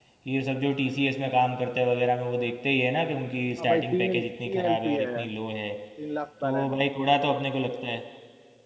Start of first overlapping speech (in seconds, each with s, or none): 3.6 s